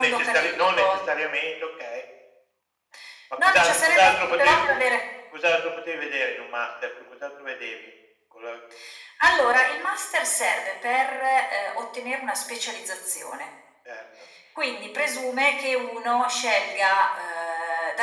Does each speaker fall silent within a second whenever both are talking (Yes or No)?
No